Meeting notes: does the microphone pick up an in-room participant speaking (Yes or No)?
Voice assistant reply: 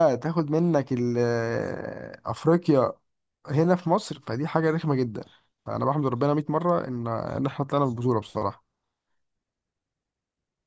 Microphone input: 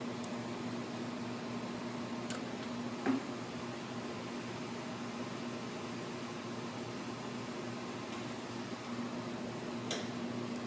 No